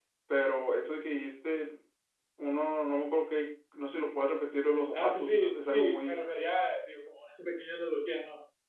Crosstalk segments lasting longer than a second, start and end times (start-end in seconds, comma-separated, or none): 4.9-6.2